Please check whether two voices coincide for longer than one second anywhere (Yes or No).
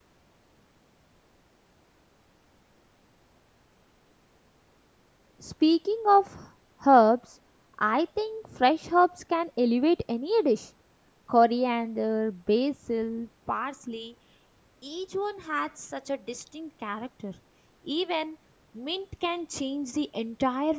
No